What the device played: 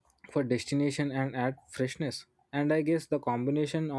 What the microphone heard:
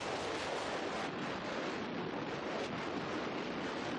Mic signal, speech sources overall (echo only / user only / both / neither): neither